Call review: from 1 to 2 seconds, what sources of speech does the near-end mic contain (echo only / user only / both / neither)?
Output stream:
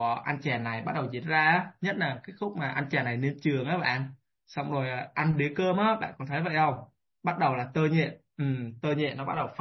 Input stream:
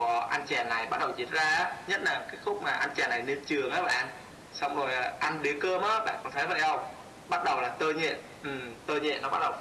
echo only